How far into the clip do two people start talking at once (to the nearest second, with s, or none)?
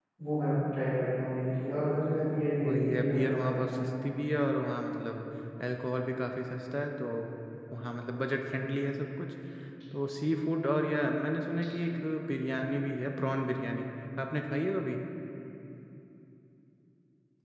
3 s